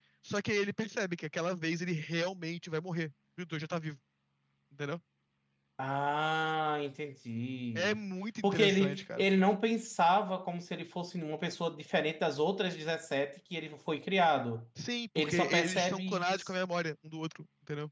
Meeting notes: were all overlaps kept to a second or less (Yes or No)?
No